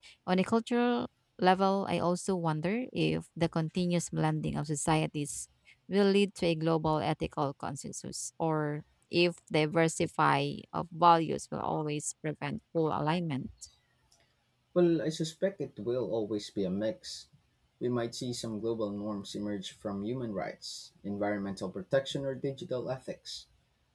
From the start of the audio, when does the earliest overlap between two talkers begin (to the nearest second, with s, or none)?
none